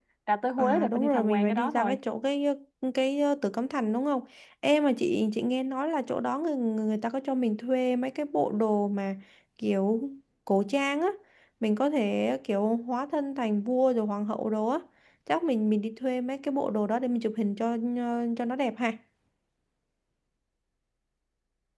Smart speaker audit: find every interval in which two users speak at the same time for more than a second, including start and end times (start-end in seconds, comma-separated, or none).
0.6-2.0